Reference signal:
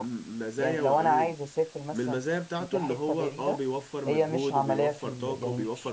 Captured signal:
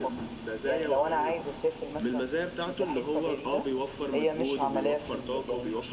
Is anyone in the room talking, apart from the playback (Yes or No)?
No